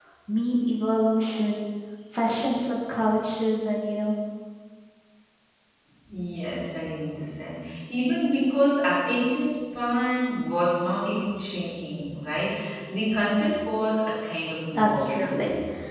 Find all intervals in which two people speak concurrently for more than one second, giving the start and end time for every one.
none

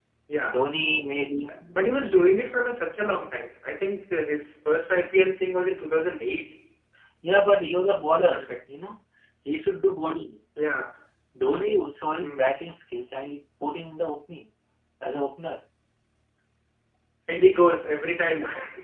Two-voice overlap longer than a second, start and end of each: none

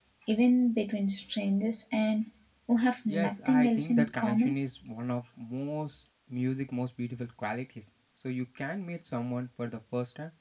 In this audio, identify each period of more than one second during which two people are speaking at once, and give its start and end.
3.1-4.5

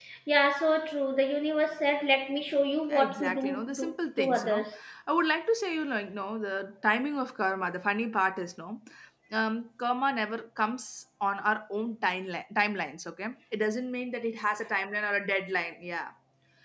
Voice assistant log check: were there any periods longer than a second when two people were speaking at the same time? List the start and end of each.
2.9-4.7

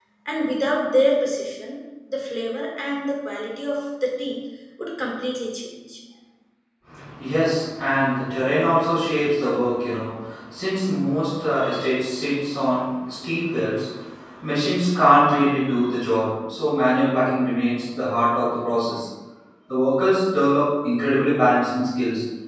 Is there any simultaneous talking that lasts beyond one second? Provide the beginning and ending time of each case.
none

